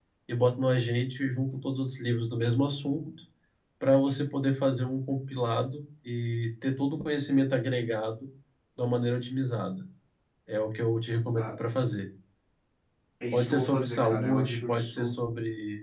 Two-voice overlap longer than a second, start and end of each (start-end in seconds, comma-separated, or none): 13.3-15.1